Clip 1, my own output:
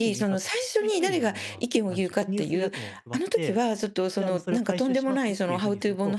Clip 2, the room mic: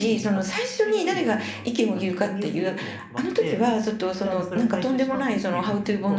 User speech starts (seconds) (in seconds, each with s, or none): none